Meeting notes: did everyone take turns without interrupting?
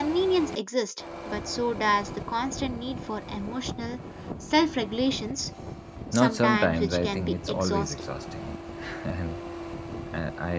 No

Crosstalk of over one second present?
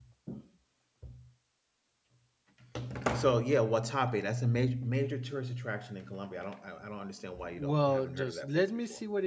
Yes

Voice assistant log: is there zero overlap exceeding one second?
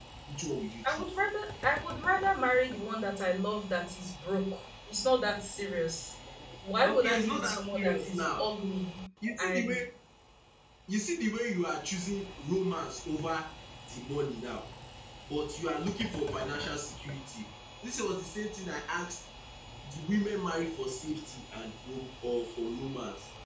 No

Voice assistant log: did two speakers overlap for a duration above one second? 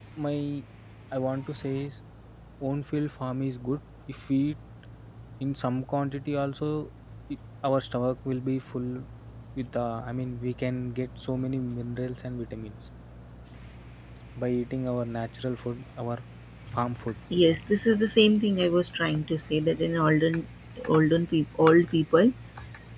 No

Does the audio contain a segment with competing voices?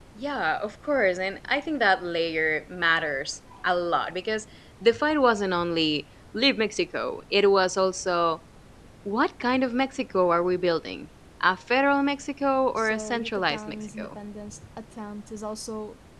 Yes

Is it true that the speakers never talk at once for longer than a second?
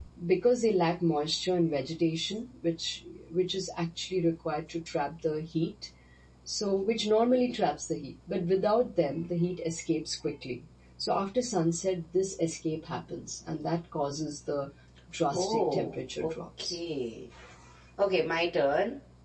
No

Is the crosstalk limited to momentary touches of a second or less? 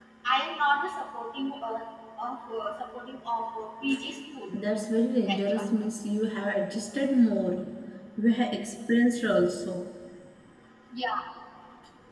Yes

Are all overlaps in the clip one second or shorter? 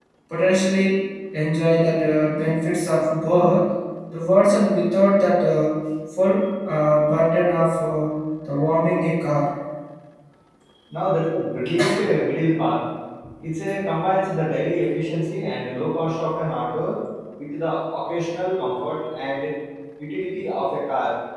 Yes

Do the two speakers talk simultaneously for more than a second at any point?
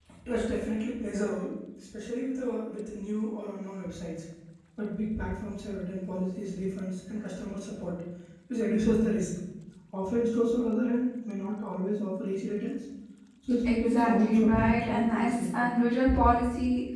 Yes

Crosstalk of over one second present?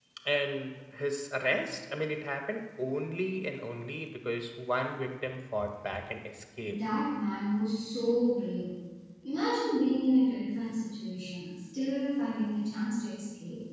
No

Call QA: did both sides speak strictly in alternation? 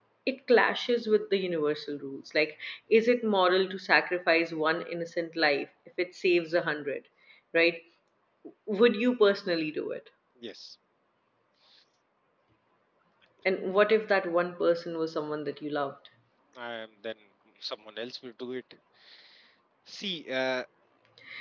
Yes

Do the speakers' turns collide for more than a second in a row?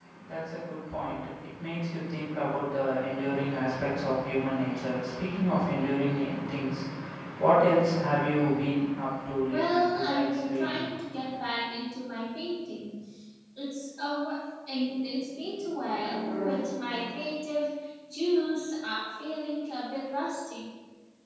Yes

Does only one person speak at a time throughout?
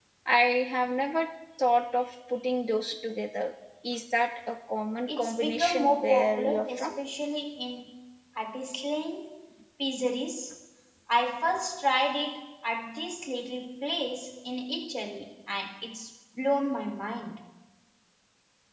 No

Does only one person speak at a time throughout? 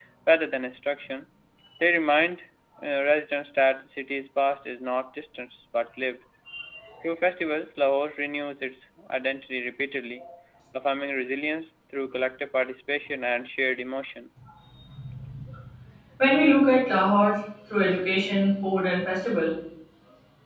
Yes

